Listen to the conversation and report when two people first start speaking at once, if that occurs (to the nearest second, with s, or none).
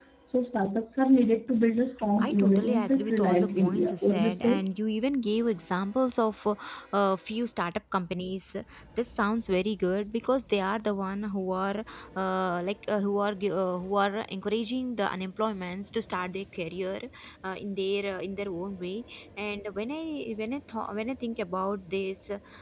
2 s